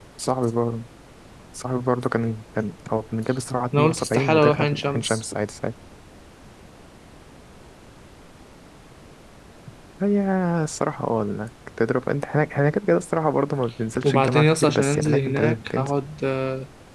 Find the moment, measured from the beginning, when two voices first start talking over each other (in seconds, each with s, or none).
3.7 s